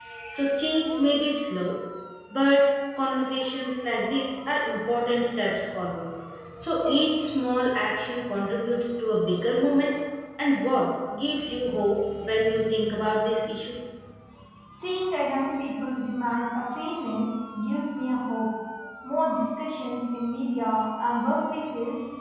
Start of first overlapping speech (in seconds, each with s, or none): none